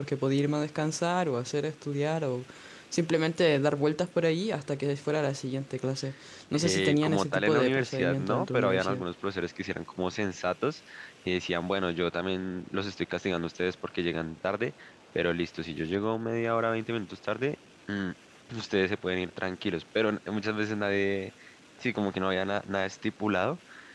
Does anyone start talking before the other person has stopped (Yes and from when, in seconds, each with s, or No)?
Yes, from 6.5 s